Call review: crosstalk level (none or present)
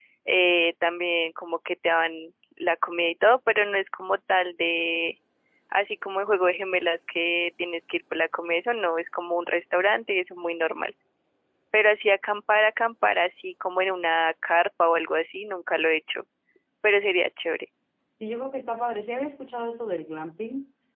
none